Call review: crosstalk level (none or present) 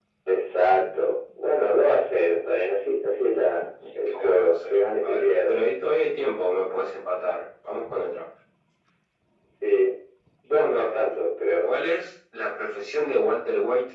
present